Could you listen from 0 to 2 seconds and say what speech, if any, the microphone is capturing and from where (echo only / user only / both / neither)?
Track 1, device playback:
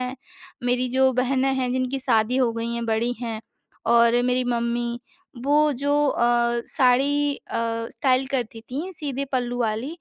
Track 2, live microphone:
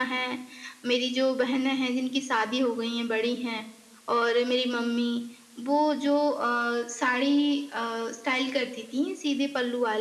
echo only